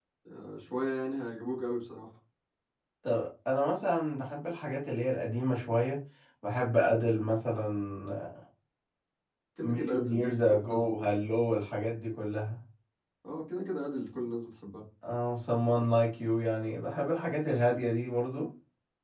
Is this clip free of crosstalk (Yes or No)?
No